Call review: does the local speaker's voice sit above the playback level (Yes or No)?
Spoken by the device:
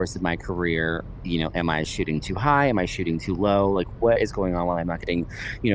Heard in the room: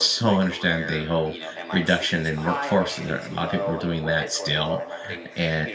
Yes